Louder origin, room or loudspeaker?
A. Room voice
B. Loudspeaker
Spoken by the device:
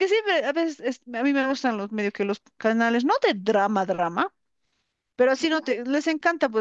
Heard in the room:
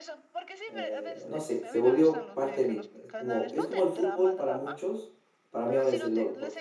A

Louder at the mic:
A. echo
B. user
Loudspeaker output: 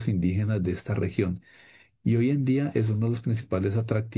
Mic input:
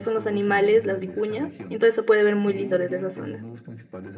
B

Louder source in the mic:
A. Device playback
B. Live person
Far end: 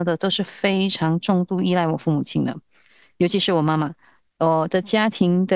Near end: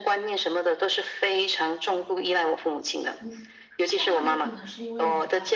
A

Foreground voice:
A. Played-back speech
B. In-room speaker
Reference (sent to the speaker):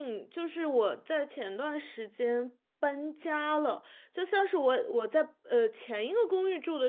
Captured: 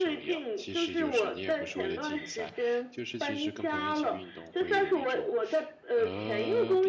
A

